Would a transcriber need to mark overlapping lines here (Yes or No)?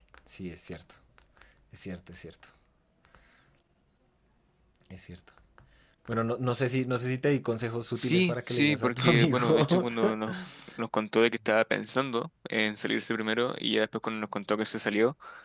Yes